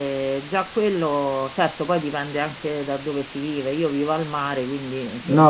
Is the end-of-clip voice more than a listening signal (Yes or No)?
Yes